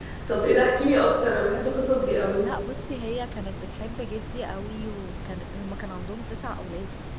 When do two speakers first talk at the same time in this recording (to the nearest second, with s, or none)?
none